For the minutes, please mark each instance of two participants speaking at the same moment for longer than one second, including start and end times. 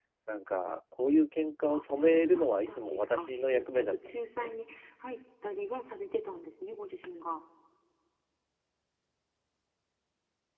1.7-4.5

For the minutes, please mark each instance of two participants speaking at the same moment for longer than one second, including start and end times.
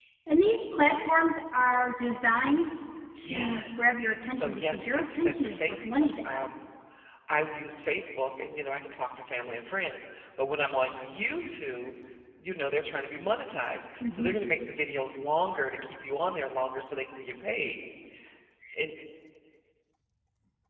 3.3-6.5

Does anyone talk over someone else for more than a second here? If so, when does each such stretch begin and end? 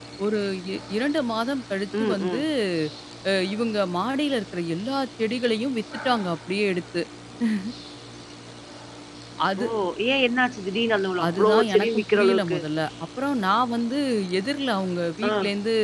11.4-12.6

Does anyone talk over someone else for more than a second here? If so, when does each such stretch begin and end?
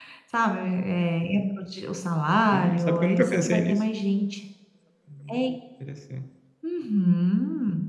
2.5-3.8

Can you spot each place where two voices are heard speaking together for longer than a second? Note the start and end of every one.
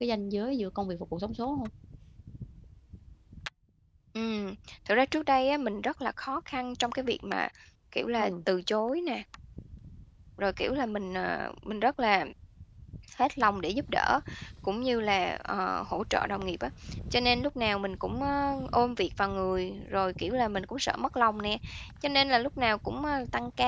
none

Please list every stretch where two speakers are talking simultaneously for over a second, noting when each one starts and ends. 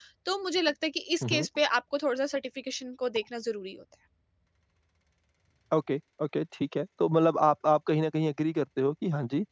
none

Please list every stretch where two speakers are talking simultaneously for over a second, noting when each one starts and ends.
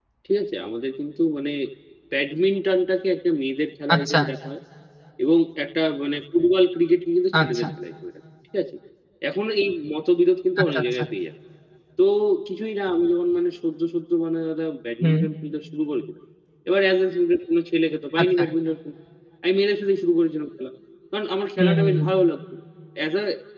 none

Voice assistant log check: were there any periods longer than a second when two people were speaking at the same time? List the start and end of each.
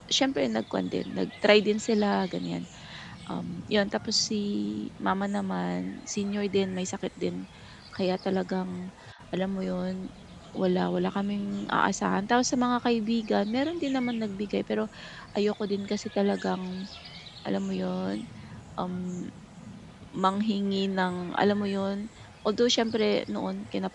none

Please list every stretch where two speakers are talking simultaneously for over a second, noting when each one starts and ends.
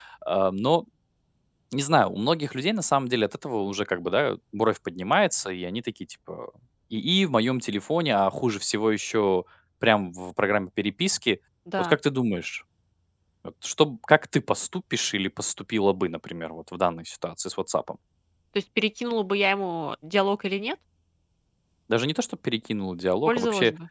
none

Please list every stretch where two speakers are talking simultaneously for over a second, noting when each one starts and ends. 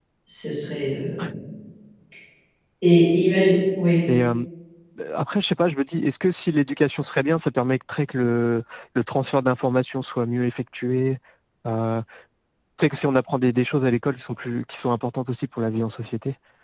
none

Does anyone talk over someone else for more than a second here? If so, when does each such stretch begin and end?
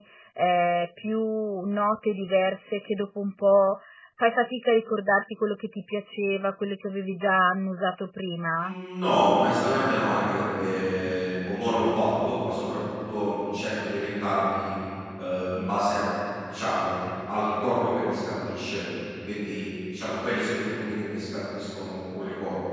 none

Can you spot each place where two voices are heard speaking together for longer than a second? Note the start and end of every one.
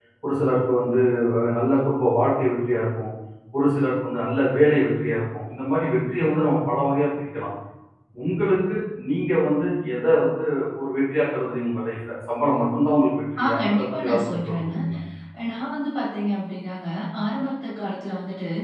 13.4-14.7

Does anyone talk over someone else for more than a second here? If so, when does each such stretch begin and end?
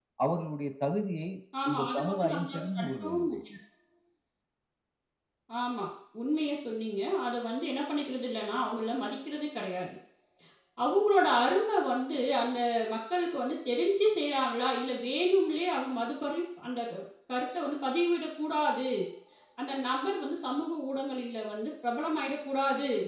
1.7-3.4

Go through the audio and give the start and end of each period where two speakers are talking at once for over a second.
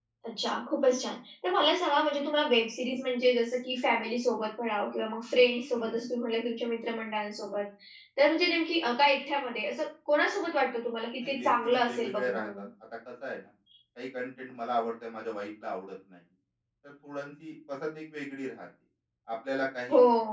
11.2-12.6

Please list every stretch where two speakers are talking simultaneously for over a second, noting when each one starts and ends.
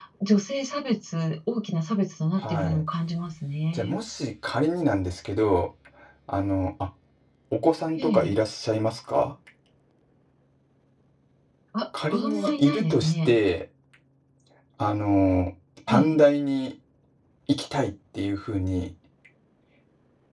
12.1-13.3

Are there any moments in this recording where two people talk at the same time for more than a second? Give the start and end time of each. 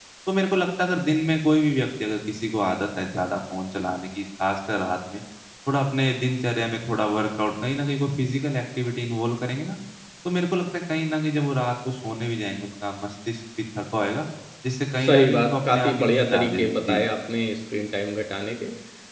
15.0-17.0

